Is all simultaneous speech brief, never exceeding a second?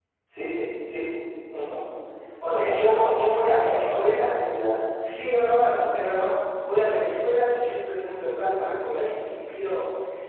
No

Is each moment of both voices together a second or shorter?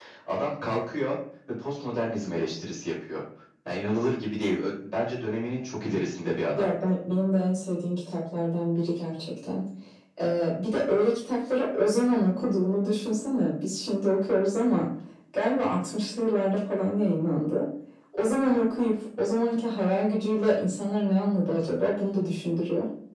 Yes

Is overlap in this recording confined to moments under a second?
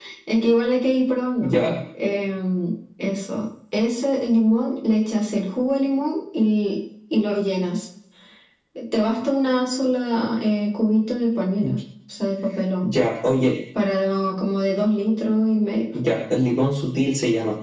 Yes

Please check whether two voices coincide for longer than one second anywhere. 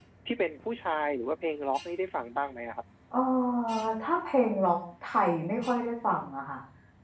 No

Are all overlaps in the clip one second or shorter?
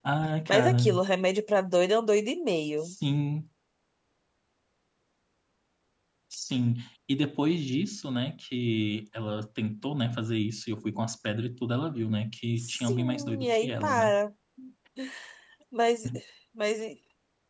No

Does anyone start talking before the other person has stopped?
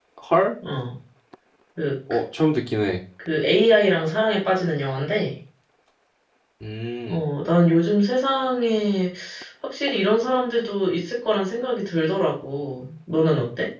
No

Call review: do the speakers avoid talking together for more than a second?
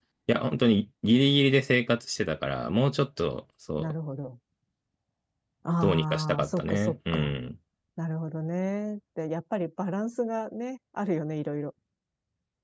No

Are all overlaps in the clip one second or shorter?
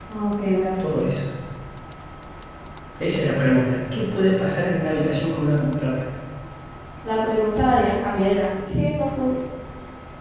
Yes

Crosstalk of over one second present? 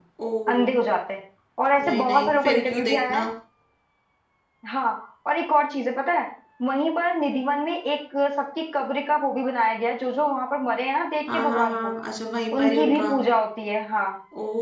Yes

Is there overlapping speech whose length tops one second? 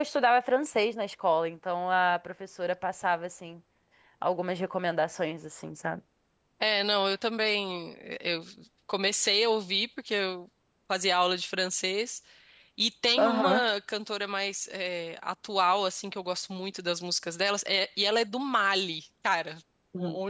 No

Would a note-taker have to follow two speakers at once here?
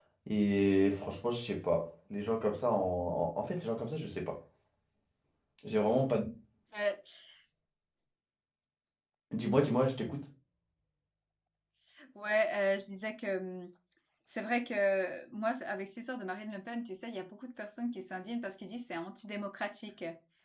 No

